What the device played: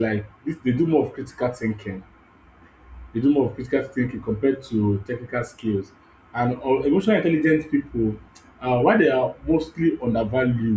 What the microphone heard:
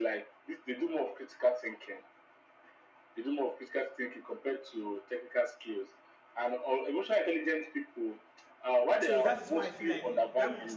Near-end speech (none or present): present